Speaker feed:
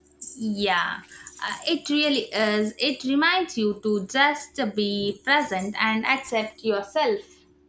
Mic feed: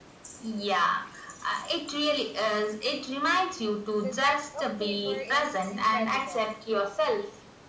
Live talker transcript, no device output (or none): The depth of flavor is incredible.